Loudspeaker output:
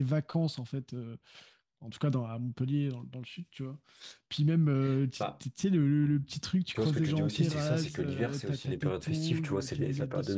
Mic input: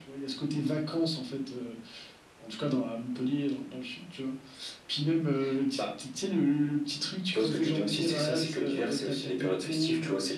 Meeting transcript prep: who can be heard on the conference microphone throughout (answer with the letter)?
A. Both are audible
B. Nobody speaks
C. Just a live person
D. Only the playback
D